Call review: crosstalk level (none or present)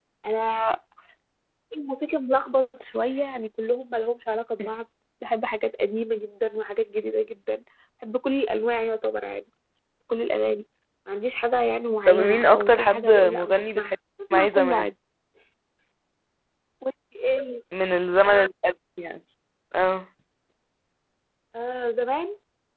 present